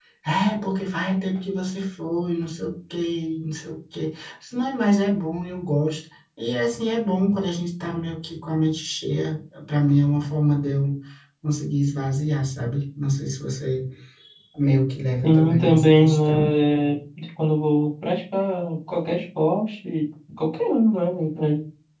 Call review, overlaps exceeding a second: present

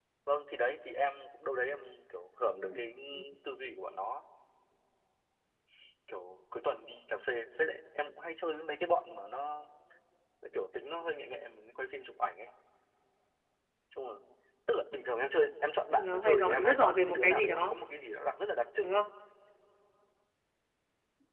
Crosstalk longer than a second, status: present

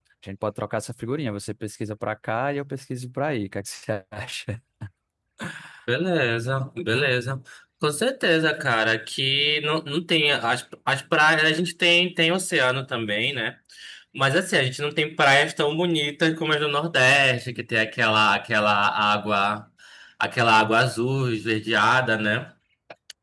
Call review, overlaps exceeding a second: none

